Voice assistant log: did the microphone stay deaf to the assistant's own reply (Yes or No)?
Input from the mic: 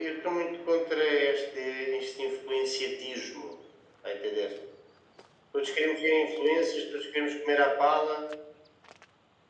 No